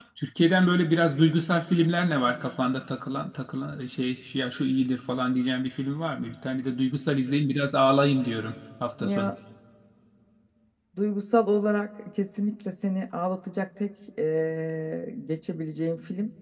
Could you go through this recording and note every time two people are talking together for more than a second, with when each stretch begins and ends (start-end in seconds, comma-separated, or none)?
none